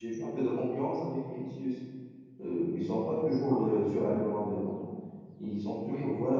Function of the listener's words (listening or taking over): listening